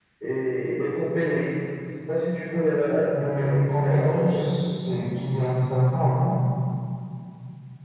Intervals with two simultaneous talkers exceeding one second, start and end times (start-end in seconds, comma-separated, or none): 3.2-4.5